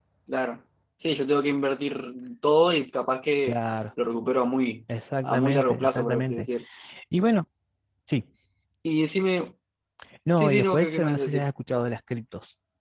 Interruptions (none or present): present